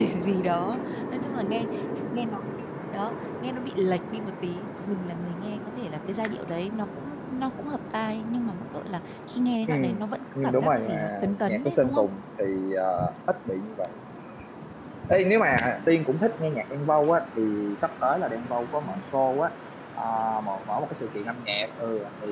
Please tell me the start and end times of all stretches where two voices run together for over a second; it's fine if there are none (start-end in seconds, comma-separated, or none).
10.4-12.1